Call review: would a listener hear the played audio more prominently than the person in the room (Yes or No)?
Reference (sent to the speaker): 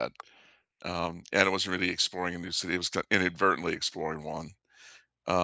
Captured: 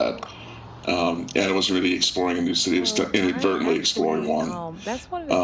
Yes